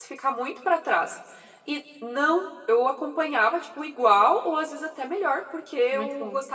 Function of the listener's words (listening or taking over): listening